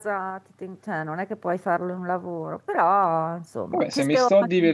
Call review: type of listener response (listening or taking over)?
taking over